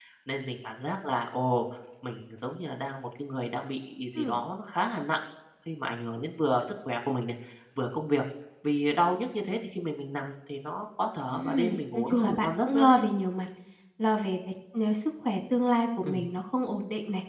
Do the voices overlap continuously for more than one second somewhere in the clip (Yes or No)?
Yes